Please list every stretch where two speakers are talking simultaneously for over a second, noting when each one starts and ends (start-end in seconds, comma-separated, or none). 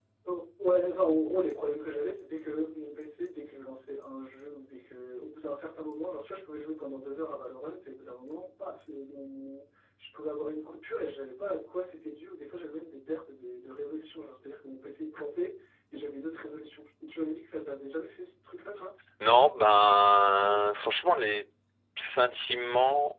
none